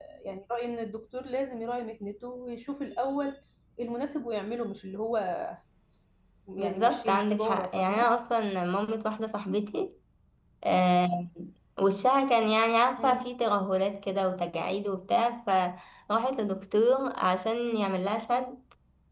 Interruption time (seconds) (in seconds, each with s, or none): 6.6 s